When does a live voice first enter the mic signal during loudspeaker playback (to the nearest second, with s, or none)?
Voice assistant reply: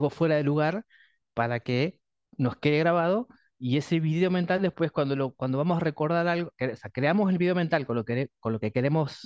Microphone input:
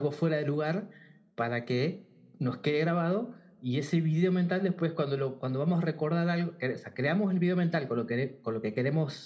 none